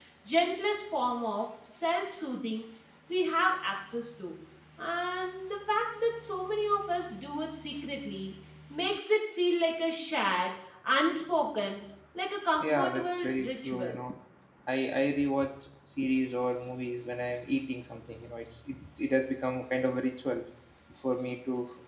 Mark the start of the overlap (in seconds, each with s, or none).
12.6 s